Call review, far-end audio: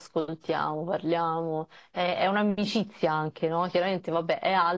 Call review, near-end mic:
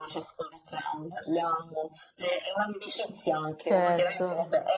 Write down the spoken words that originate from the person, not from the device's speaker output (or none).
Certo,